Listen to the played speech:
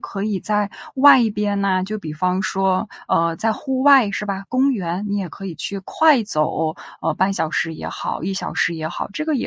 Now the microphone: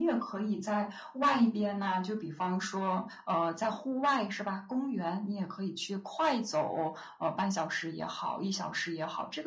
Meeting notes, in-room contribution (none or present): none